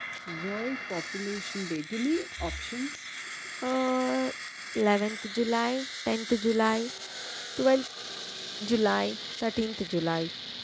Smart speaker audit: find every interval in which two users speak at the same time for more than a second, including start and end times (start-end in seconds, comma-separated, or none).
none